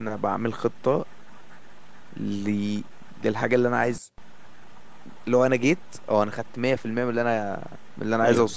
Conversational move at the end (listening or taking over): taking over